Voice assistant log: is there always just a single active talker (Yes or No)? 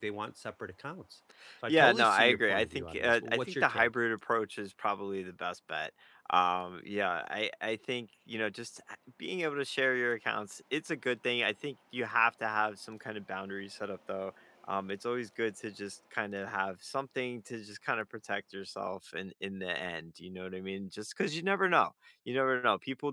No